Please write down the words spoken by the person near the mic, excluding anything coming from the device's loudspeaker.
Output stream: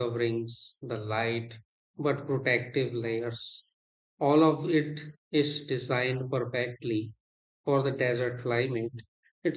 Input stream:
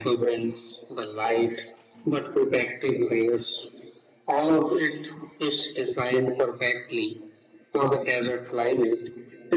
none

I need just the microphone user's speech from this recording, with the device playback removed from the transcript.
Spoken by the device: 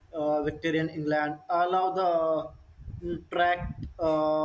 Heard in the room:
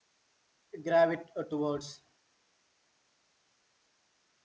gravitate uh, towards.

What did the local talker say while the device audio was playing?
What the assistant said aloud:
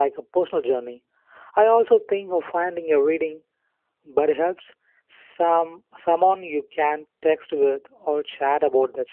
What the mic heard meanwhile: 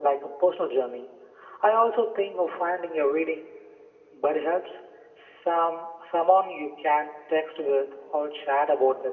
none

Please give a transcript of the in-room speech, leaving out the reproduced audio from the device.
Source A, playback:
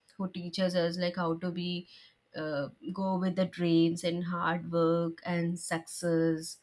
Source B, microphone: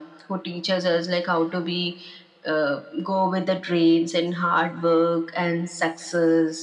none

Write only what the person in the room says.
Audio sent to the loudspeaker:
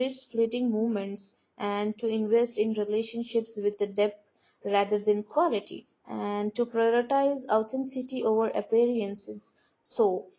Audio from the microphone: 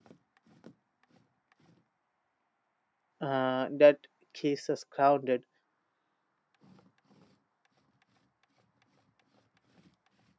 uh, that keeps us grounded.

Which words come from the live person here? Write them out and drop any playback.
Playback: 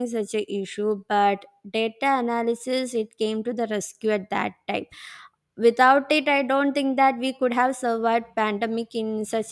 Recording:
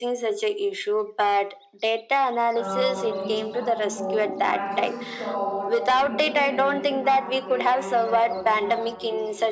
uh, when we reached back to home, I just saw what uh, you know the penalties we have to play and uh, we have to pay

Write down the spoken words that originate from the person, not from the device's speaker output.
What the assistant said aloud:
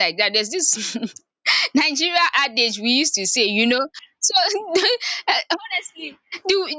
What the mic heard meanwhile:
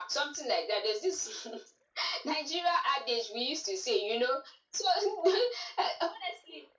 none

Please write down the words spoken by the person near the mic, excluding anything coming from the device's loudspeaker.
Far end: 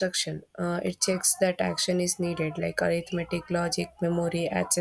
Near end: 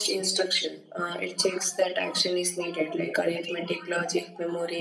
none

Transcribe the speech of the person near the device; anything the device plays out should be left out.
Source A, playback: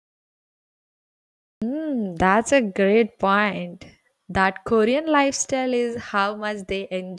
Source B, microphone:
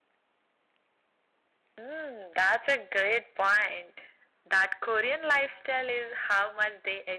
none

